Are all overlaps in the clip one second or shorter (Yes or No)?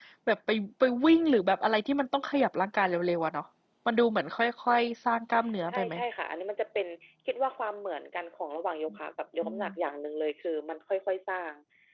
Yes